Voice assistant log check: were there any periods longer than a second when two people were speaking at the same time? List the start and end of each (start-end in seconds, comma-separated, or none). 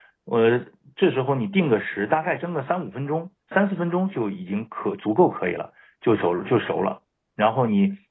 none